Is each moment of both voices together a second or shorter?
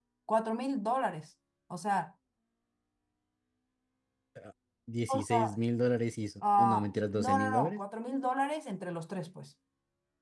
No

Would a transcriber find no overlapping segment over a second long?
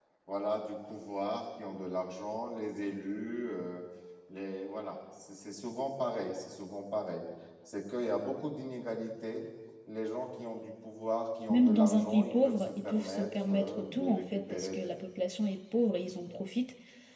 No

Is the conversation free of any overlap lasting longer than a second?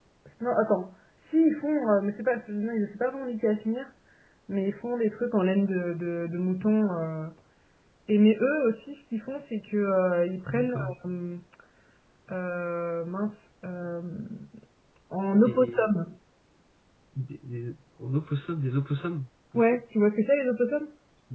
Yes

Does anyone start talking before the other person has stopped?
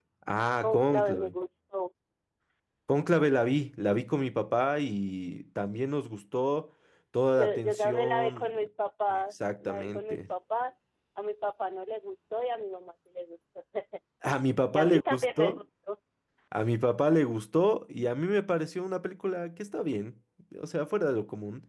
Yes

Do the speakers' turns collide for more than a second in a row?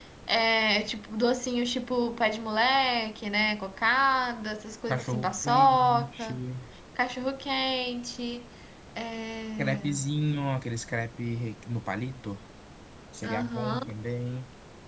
Yes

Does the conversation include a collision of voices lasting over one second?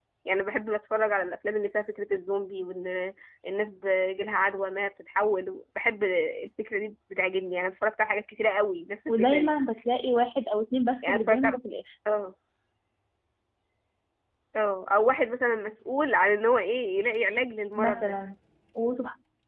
No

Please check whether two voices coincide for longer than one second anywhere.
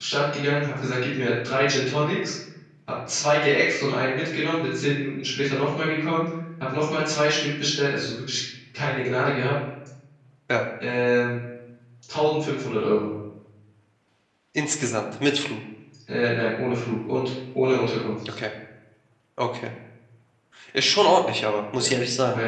No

